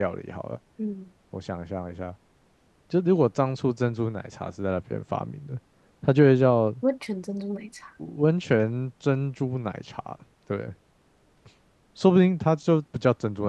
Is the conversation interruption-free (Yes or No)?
Yes